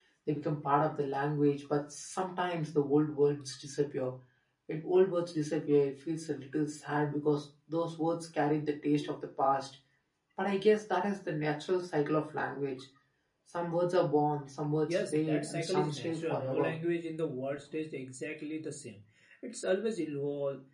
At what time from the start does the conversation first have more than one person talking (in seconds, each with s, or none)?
14.9 s